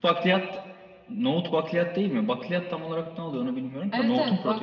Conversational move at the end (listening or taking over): taking over